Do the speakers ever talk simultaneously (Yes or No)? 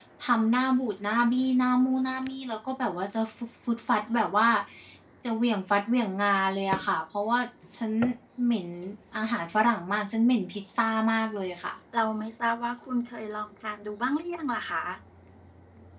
No